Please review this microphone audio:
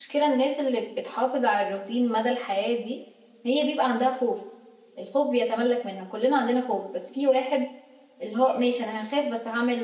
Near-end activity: present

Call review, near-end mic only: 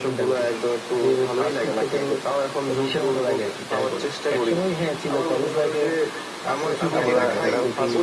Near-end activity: present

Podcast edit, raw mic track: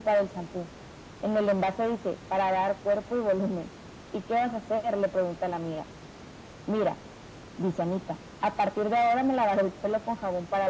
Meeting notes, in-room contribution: none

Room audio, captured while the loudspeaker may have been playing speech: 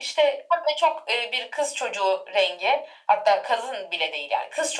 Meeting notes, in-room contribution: none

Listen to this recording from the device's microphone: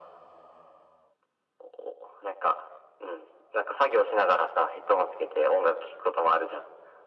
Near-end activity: none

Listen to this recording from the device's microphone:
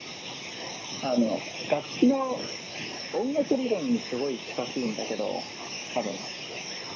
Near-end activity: none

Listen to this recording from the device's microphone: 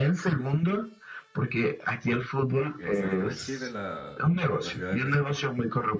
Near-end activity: present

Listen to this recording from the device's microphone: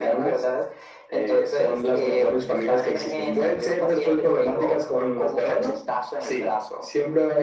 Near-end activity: none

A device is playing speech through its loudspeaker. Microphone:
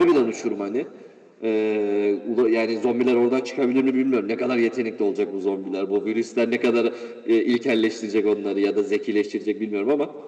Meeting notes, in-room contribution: none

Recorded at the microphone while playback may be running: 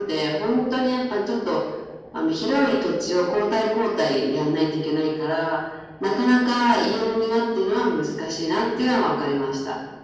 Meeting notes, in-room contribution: none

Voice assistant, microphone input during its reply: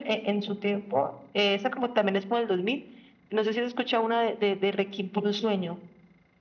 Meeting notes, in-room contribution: none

